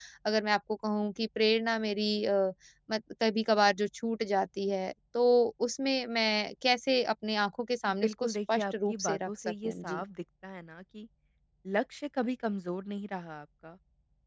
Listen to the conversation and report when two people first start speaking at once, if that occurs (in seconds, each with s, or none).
8.0 s